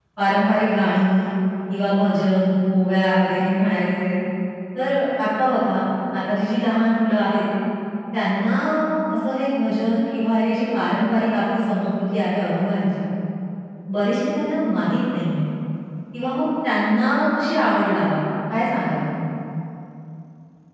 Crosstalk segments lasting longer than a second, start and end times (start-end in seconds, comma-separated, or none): none